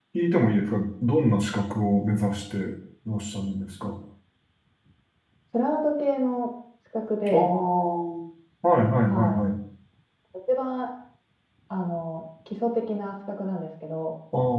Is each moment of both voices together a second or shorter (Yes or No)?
Yes